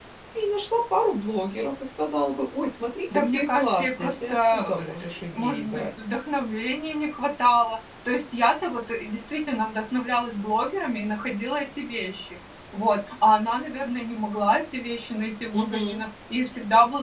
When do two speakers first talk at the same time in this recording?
3.1 s

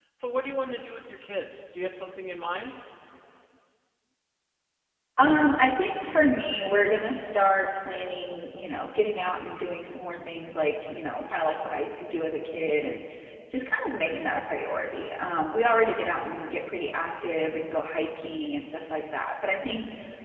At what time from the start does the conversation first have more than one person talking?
none

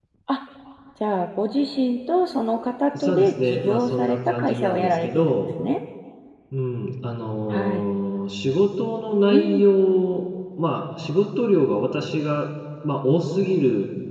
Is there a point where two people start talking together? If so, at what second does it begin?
3.0 s

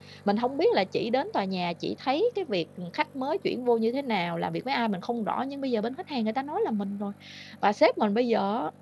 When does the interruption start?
none

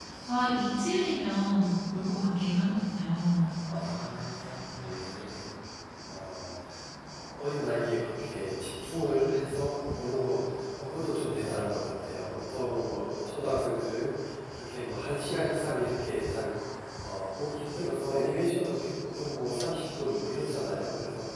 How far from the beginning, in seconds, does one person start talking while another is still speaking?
none

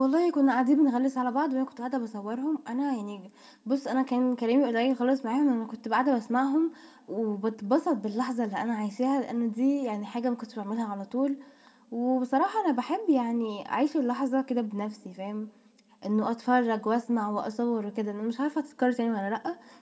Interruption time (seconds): none

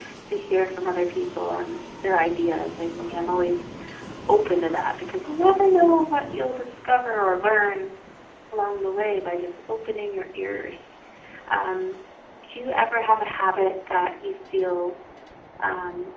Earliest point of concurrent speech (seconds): none

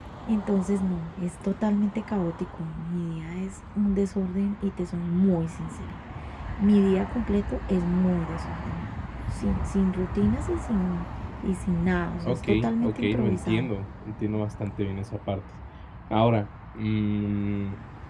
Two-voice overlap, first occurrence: 12.2 s

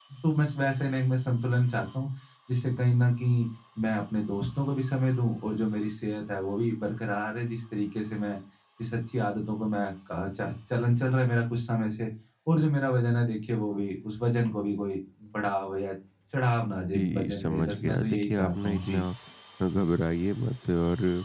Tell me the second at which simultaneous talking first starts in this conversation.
16.9 s

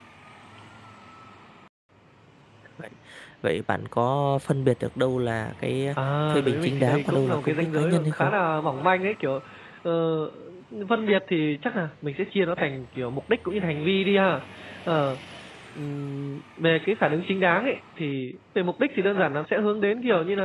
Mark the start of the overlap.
6.3 s

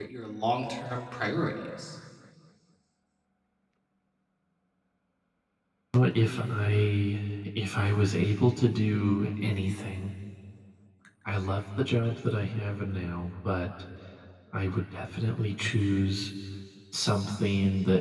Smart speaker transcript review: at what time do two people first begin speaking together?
none

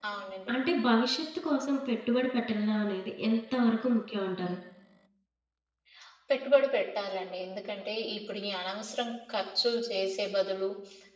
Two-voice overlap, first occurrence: none

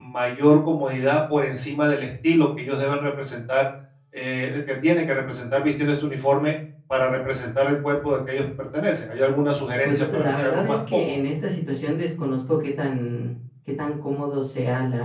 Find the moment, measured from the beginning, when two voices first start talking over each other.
9.8 s

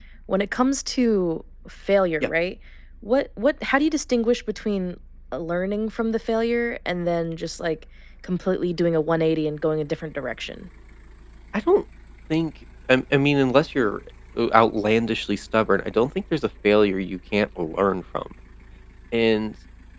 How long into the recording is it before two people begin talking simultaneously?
none

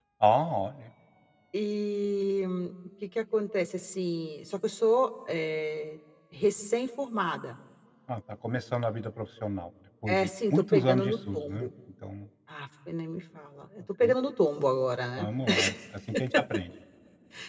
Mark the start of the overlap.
10.1 s

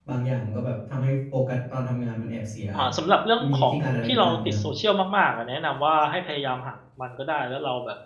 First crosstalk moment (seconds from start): 3.4 s

